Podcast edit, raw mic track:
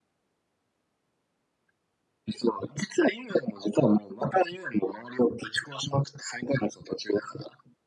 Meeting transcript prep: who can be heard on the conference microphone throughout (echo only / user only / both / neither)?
echo only